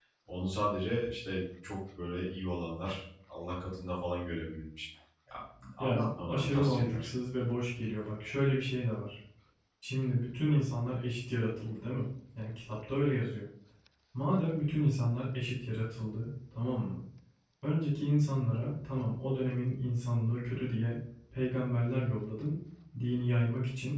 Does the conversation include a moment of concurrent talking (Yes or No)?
Yes